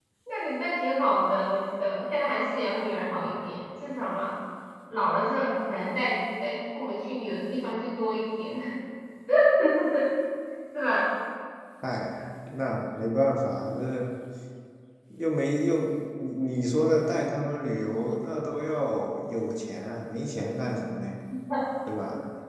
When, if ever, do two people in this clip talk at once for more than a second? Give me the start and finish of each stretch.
none

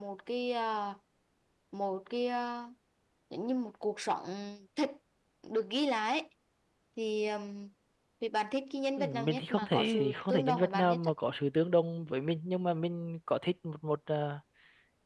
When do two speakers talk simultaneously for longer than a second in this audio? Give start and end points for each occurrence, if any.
9.0-11.1

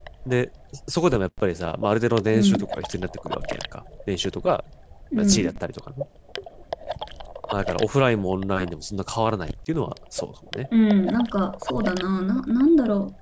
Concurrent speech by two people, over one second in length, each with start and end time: none

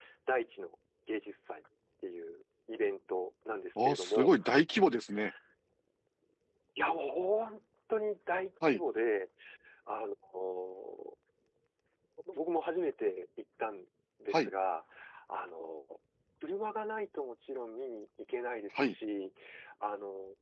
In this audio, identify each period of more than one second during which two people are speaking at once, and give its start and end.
none

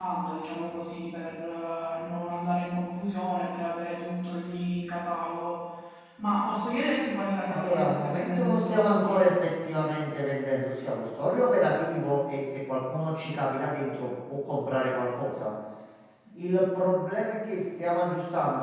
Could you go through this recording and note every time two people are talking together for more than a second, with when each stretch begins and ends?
7.5-9.3

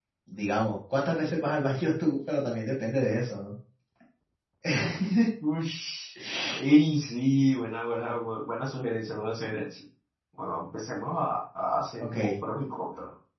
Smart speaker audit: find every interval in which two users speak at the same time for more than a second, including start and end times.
none

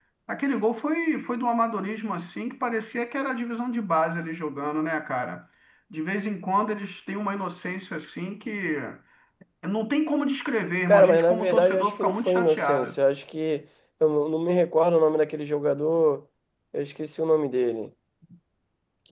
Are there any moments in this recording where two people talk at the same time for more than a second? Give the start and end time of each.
10.9-13.0

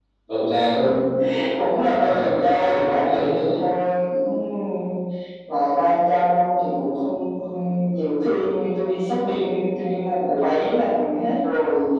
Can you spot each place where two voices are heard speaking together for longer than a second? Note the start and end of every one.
2.0-3.3

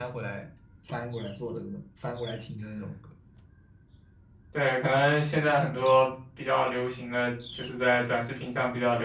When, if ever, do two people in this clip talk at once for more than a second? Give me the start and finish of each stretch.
none

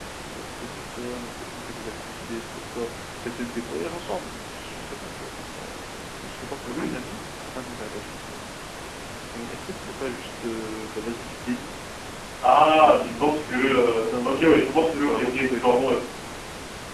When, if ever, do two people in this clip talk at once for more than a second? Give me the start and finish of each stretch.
12.8-15.8

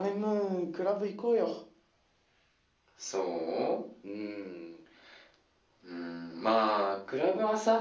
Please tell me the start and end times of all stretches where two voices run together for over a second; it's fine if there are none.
none

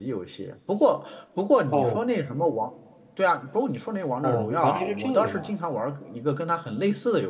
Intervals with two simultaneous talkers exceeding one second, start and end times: 4.2-5.5

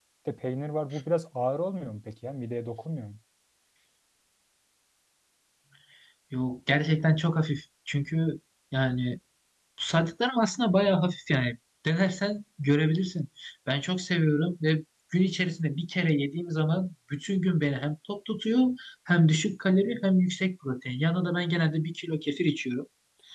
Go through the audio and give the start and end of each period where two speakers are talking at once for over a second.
none

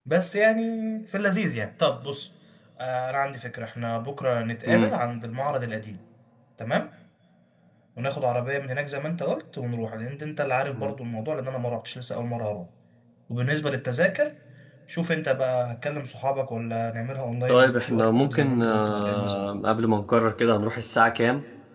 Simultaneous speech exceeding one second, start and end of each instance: 17.5-19.4

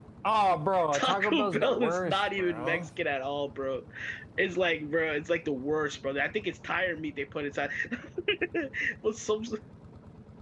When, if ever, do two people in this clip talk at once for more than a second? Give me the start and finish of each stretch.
0.9-2.8

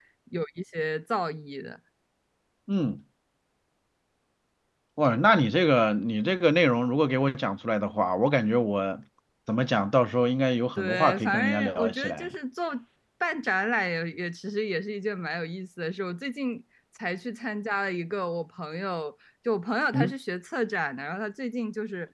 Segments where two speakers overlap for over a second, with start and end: 10.8-12.3

